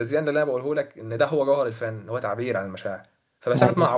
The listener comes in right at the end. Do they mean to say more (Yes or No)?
No